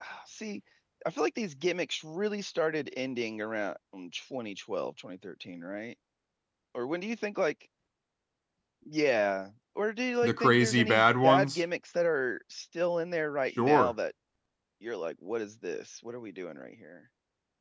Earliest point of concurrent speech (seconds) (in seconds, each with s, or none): 10.2 s